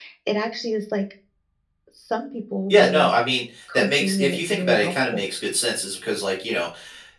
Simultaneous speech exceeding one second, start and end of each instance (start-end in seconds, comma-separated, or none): 3.7-5.2